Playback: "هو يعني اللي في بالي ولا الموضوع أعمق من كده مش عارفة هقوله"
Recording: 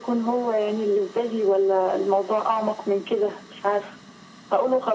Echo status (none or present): present